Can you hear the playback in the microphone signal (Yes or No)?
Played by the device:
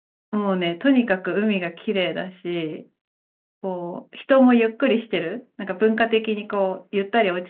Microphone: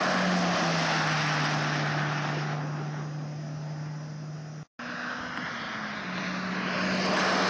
No